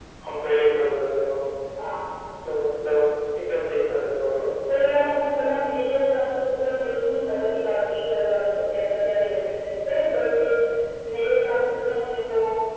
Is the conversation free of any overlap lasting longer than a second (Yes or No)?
Yes